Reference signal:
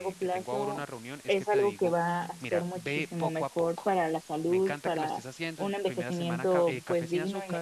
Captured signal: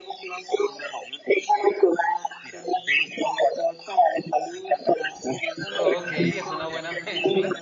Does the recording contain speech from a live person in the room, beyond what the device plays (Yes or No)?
Yes